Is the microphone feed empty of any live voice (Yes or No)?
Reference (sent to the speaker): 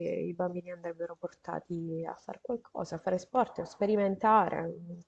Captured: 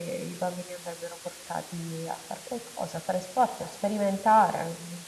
Yes